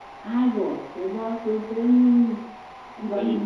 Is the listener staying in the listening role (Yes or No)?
Yes